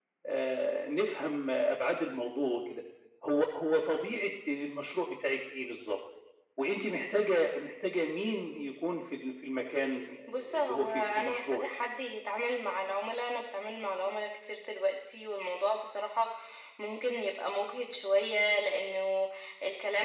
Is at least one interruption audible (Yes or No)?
Yes